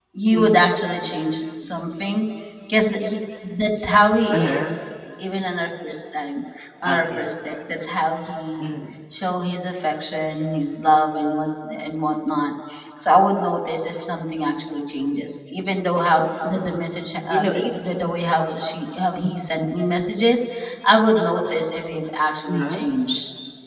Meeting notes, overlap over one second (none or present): none